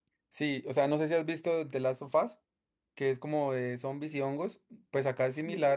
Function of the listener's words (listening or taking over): listening